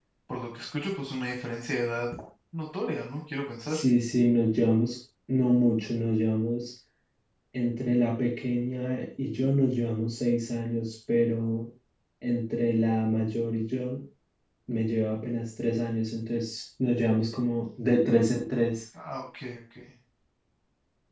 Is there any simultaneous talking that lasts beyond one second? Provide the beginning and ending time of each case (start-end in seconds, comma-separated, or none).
none